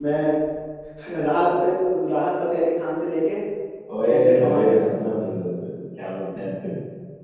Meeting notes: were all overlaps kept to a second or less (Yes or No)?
No